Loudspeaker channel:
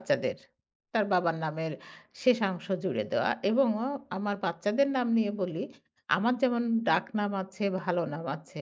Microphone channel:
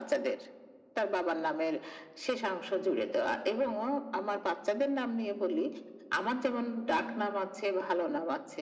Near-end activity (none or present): none